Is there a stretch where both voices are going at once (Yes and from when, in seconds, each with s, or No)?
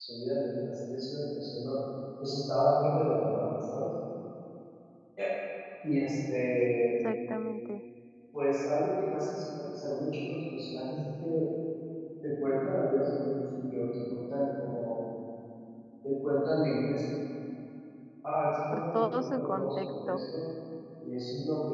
Yes, from 18.7 s